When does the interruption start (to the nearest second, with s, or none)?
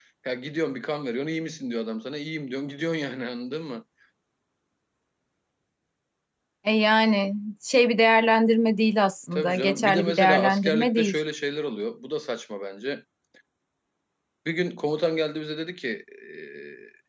9 s